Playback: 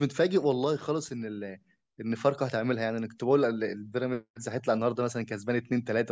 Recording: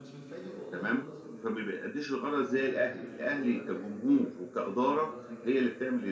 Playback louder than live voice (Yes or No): No